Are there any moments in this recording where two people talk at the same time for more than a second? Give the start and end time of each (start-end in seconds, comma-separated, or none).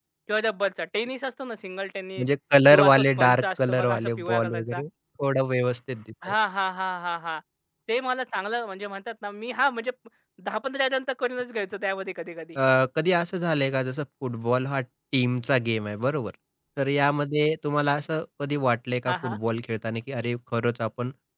2.7-4.8